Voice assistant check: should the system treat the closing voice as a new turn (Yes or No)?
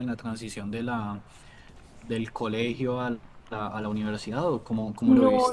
Yes